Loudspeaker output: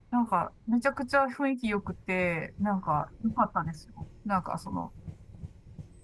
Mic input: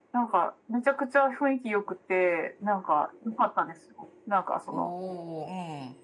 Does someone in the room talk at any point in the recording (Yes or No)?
Yes